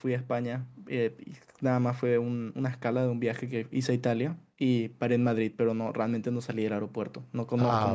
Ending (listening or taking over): taking over